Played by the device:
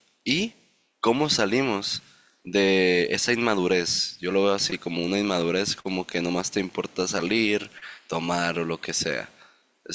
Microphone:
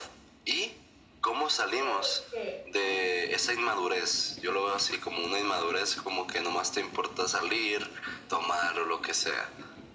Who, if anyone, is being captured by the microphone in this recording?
both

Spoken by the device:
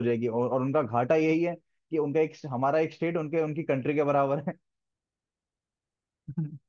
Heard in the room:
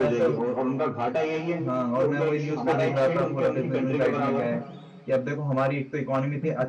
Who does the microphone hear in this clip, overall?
both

